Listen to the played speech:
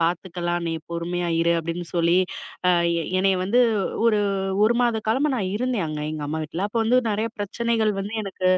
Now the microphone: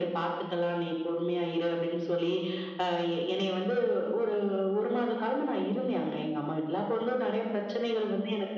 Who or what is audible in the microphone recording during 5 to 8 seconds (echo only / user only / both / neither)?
echo only